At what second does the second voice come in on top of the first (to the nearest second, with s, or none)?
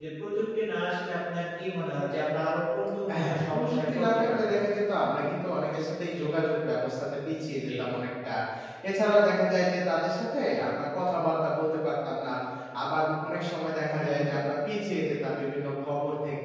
3 s